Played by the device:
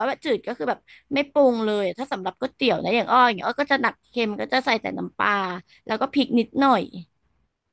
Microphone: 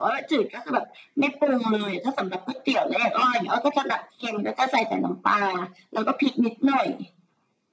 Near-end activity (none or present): none